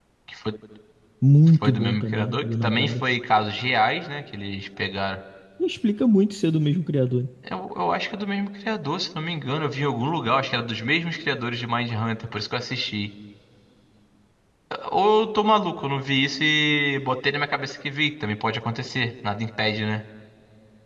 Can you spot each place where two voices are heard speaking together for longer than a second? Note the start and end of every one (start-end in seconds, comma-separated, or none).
1.5-3.0